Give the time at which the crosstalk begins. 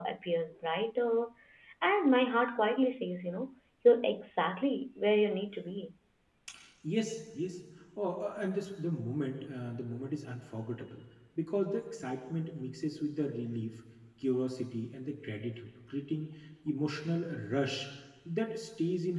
none

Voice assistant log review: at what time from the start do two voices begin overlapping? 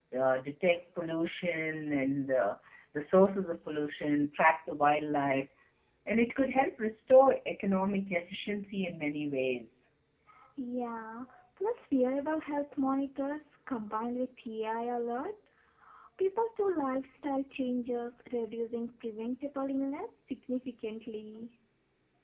none

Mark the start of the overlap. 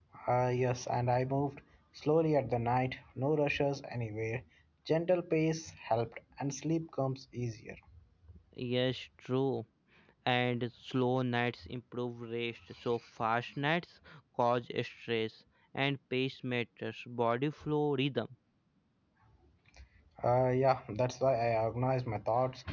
none

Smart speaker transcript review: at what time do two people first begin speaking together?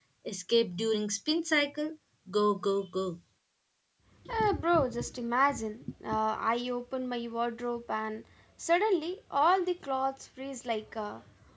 none

